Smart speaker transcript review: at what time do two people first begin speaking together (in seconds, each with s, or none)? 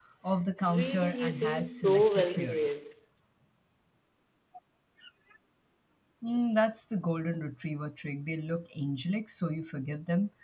0.7 s